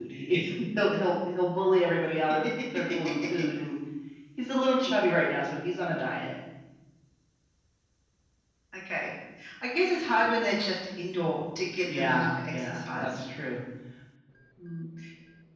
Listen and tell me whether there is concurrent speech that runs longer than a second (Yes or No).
Yes